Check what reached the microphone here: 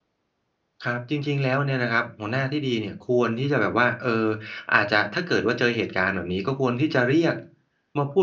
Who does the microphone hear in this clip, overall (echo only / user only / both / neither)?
user only